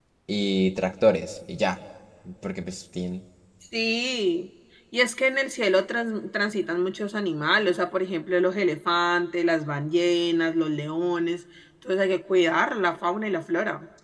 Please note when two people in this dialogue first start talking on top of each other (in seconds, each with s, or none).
none